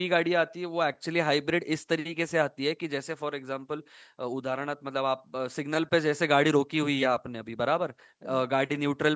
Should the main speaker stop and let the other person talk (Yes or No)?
No